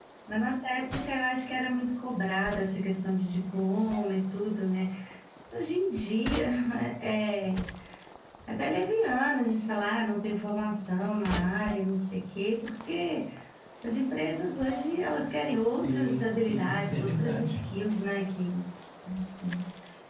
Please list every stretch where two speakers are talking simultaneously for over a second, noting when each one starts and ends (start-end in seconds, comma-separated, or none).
15.8-17.6